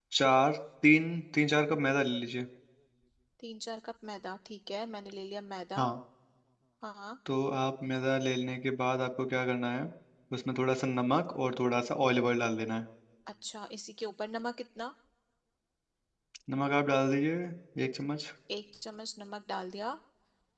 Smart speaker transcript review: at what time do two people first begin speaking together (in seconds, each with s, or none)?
none